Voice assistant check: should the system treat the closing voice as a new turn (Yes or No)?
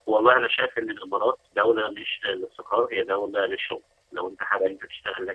No